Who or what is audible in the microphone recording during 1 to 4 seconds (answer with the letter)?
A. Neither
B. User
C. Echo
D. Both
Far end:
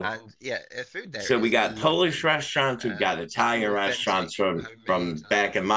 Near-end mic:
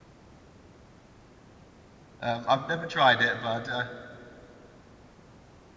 B